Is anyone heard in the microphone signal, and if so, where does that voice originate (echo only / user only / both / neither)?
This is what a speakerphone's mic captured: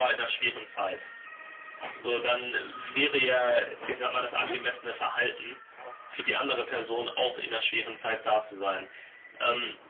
echo only